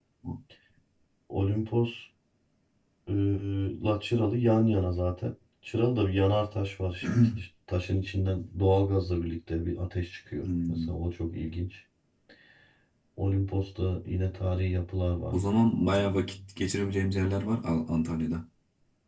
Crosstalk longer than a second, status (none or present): none